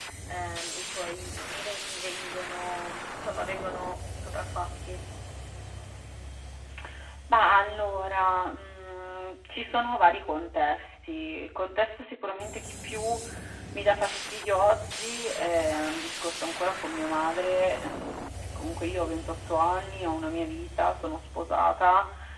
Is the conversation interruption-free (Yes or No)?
Yes